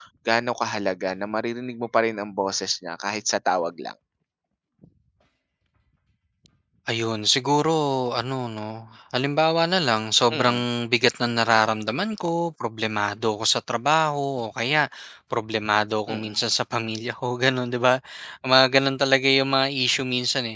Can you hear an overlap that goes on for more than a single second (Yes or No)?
No